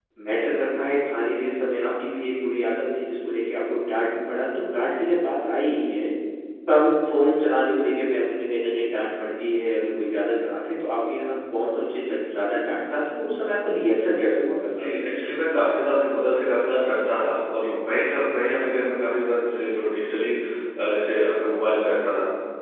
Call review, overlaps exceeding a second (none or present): none